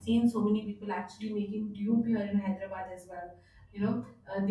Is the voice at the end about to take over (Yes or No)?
No